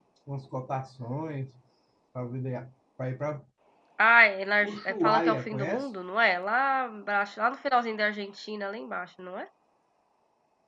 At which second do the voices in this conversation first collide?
5 s

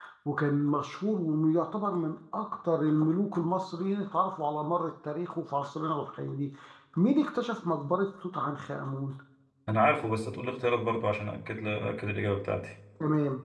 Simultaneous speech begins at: none

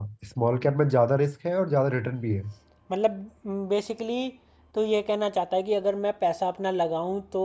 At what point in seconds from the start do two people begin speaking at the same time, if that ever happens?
none

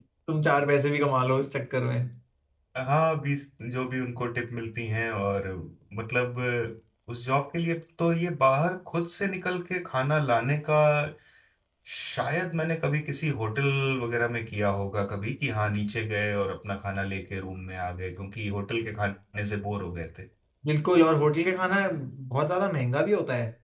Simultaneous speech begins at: none

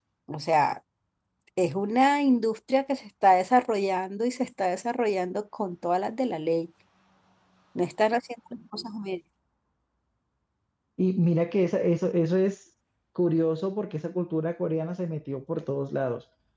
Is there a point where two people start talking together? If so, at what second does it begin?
none

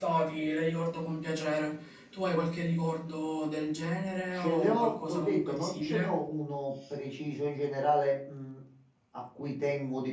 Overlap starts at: 4 s

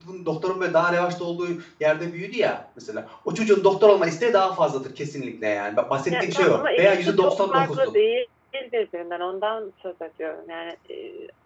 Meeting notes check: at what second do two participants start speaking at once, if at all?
6 s

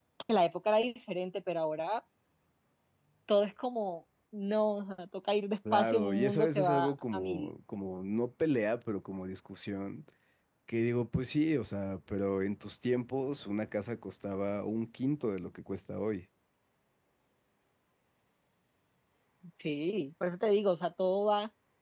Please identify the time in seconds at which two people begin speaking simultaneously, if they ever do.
6 s

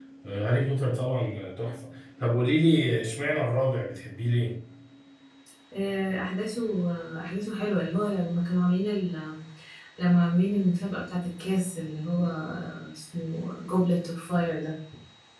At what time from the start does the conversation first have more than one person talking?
none

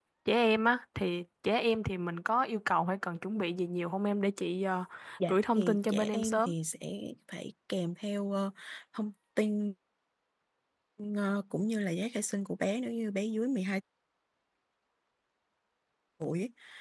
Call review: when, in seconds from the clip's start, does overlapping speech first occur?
5 s

